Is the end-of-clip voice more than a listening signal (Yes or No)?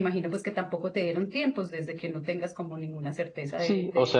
Yes